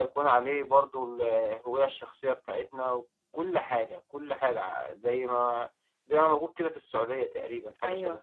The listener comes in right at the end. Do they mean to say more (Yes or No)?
Yes